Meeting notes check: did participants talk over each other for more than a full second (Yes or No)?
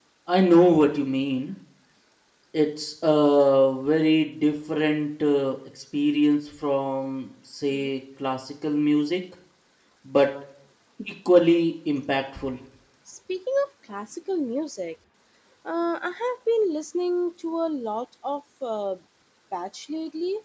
No